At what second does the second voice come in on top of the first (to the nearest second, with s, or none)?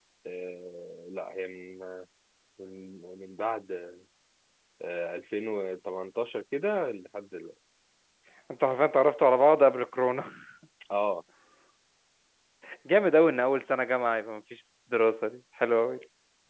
none